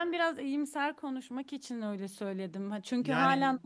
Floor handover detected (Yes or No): No